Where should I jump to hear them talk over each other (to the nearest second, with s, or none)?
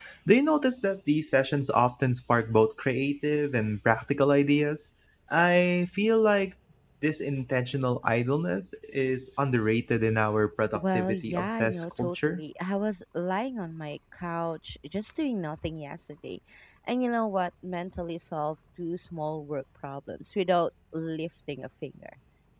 11 s